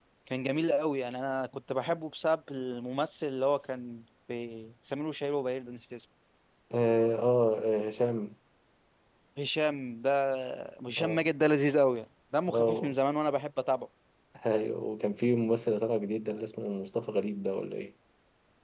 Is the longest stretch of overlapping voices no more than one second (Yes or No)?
Yes